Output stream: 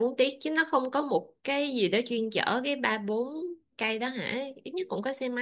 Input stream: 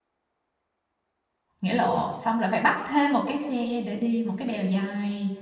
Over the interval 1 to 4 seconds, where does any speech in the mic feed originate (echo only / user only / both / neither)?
user only